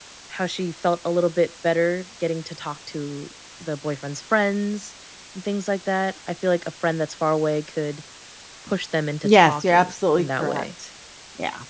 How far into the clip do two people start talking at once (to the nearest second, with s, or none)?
9 s